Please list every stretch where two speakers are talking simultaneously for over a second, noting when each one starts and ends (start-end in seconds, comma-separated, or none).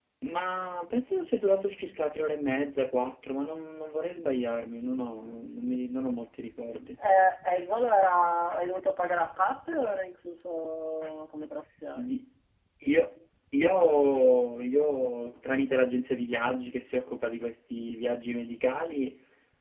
none